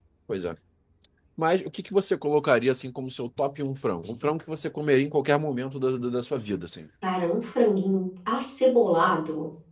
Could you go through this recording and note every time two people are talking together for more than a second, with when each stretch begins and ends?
none

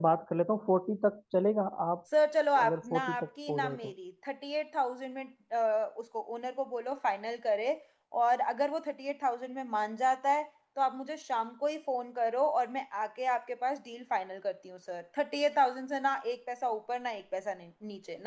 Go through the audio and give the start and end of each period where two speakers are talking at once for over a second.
2.6-3.9

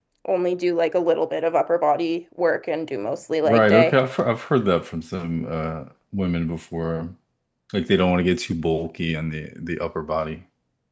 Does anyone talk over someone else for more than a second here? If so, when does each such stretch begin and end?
none

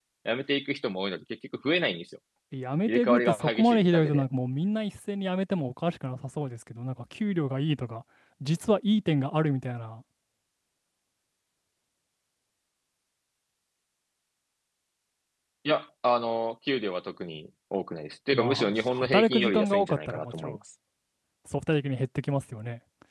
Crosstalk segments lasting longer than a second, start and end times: 2.9-4.2, 18.3-20.6

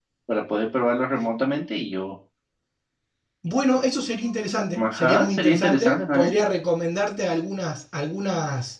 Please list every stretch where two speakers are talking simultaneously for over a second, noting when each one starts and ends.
4.8-6.3

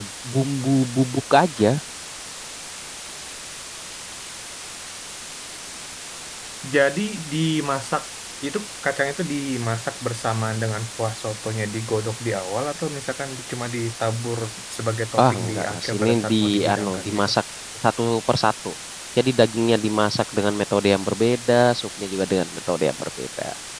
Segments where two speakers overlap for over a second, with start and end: 15.2-17.3

